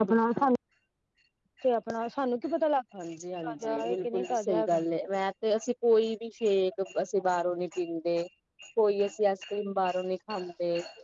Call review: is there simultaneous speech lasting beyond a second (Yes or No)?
Yes